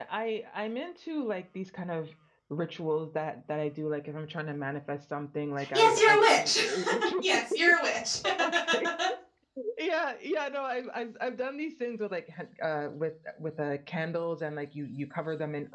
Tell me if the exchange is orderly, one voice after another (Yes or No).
No